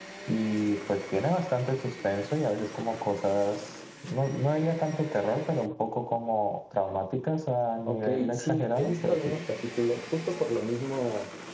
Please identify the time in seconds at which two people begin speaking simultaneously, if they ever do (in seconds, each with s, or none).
7.9 s